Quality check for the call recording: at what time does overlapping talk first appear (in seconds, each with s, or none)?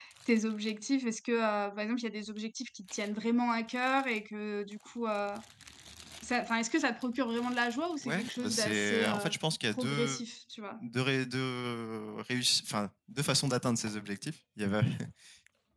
8.0 s